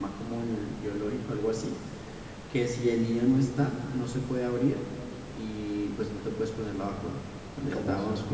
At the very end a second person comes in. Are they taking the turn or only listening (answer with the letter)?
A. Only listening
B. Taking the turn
B